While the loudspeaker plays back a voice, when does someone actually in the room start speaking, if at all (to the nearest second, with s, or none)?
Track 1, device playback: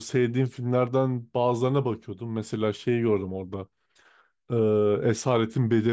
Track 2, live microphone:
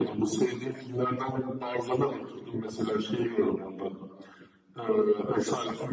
none